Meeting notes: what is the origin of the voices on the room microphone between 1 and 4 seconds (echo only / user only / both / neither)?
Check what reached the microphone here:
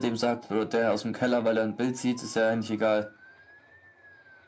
echo only